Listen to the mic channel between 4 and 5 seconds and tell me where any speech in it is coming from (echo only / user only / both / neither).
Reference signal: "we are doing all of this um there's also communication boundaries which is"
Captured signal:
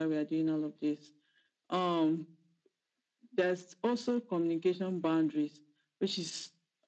echo only